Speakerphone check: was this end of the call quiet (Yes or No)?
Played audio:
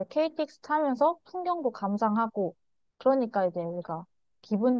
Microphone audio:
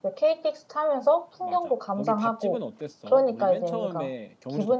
No